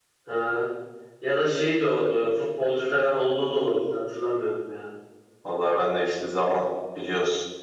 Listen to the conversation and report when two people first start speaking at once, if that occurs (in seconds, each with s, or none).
none